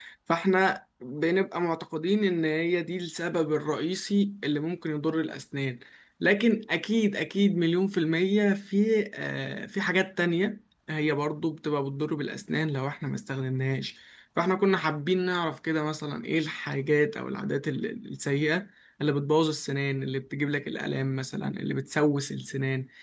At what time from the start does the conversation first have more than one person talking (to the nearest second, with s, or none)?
none